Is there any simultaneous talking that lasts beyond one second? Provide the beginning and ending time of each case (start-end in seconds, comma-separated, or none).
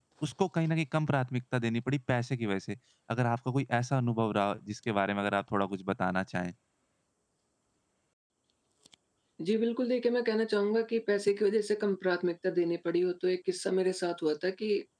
none